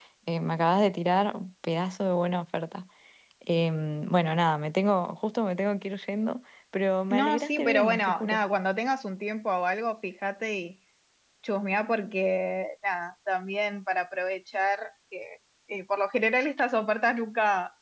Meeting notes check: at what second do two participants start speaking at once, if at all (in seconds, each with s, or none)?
7.1 s